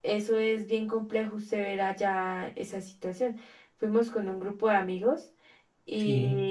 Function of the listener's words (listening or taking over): listening